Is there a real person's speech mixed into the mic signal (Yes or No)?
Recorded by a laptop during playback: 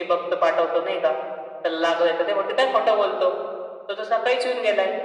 No